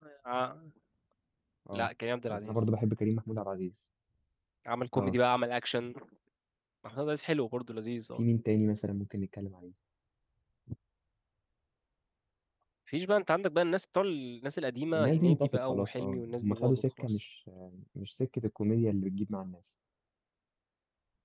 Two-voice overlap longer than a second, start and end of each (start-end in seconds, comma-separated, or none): 15.0-17.2